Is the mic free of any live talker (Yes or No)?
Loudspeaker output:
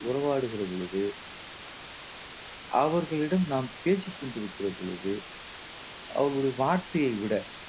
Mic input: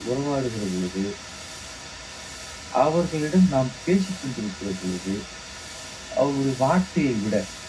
Yes